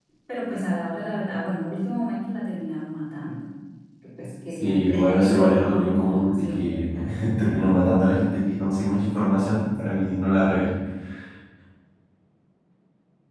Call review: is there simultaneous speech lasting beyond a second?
Yes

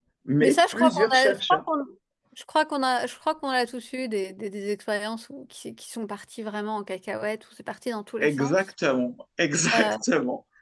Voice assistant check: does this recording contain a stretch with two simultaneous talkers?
Yes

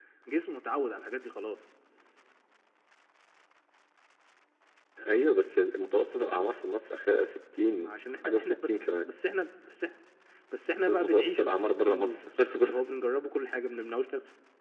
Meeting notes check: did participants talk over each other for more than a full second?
Yes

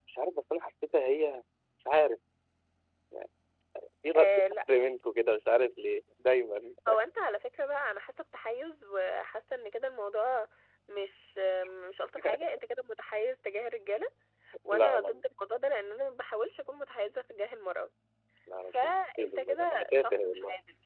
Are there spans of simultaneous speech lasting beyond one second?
Yes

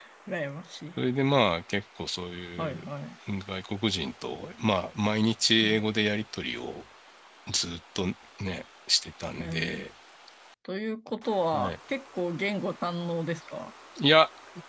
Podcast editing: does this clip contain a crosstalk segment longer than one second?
No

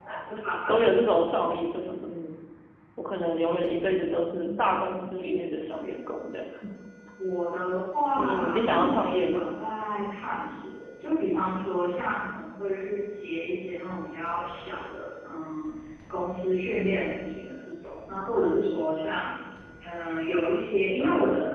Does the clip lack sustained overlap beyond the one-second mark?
No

